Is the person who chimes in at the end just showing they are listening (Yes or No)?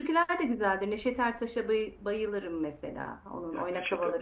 No